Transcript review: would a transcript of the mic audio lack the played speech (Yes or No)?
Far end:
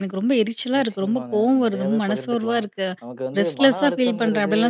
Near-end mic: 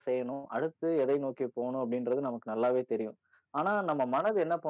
Yes